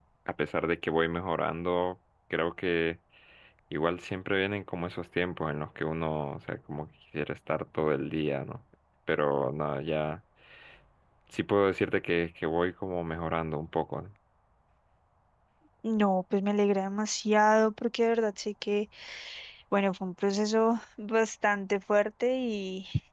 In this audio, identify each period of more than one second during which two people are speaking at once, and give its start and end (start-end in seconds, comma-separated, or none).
none